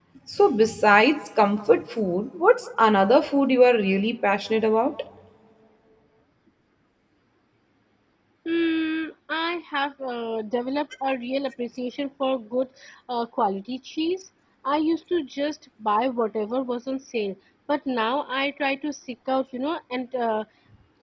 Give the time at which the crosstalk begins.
none

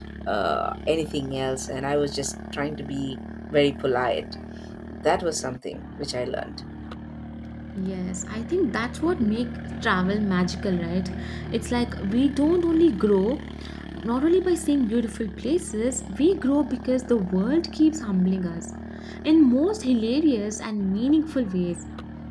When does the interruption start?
none

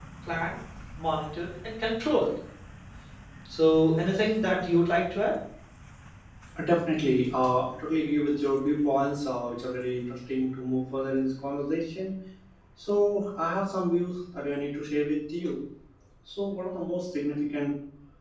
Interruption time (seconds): none

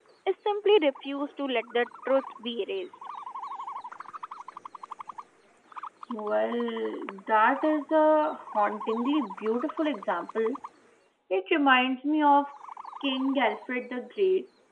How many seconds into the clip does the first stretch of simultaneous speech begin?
none

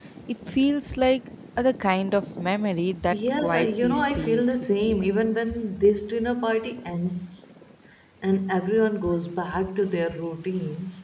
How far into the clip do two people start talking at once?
3 s

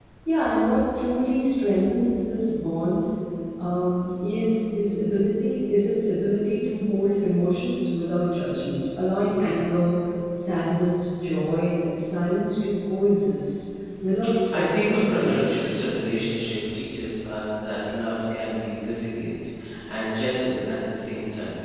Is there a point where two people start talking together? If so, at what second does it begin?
15 s

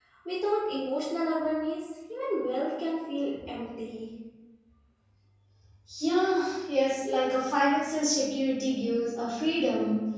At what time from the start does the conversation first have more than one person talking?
none

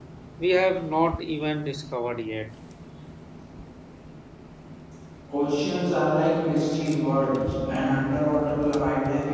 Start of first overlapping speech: none

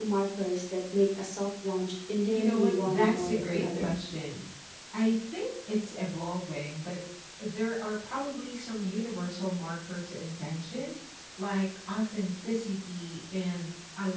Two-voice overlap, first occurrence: 2 s

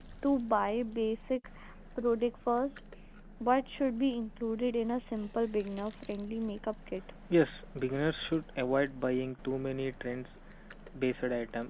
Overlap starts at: none

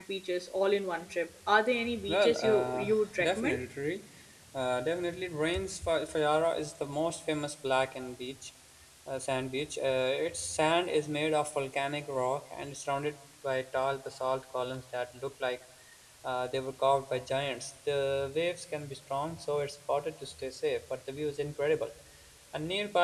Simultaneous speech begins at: 2 s

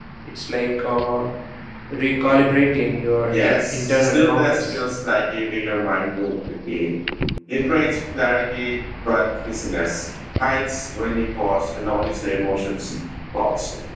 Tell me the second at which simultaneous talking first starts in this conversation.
3 s

